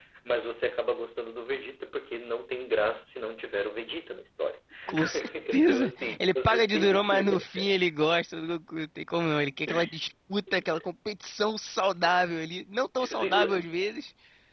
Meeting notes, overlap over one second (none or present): present